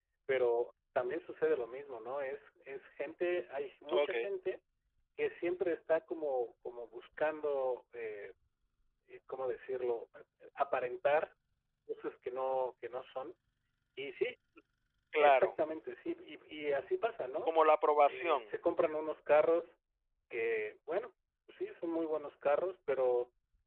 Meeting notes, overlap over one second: none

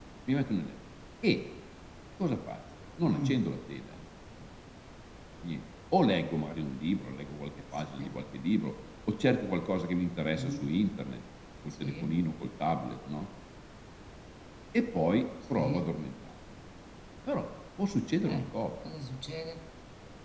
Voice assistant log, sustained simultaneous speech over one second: none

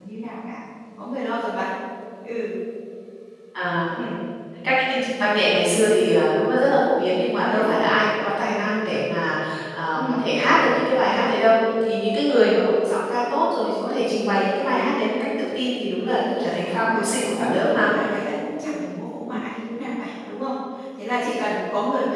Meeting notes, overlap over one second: present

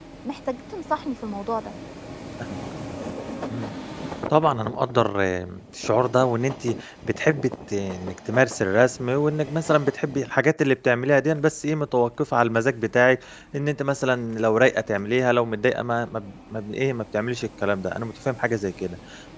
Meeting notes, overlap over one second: none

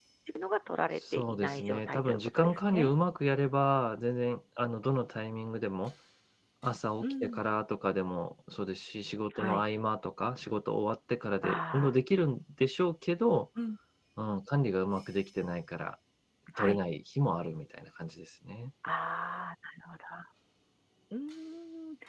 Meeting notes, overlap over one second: present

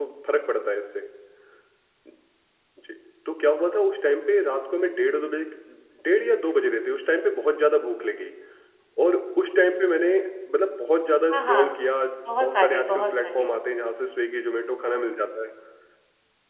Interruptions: present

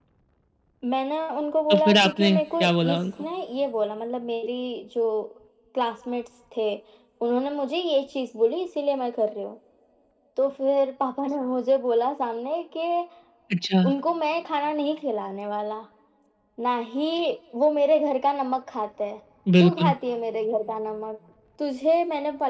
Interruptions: present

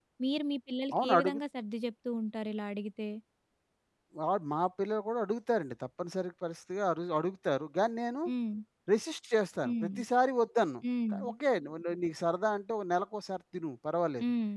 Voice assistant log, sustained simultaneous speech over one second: none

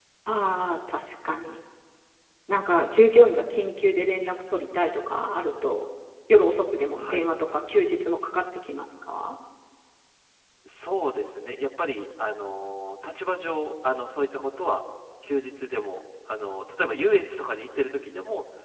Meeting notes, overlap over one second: none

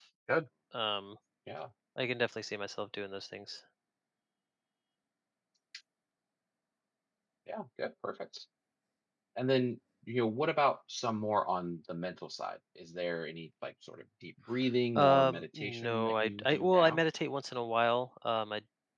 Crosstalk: present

